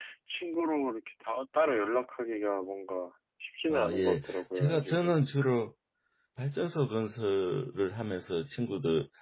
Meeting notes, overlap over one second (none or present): present